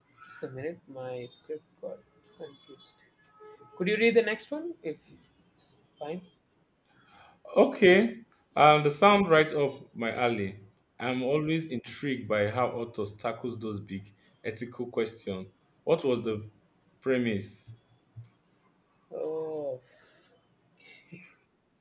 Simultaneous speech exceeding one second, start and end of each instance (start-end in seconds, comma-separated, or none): none